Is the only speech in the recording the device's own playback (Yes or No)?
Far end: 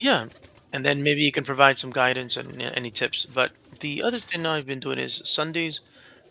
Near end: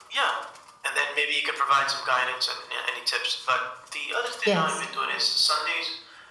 No